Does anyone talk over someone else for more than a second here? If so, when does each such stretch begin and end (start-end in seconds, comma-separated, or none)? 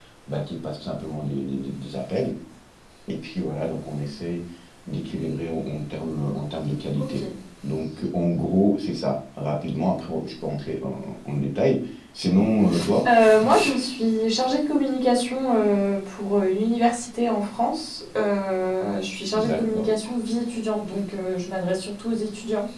none